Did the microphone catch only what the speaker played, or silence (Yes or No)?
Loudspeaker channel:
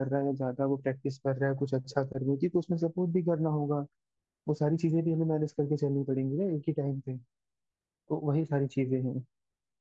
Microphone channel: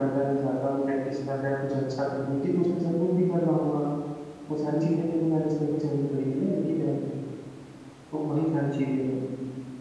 Yes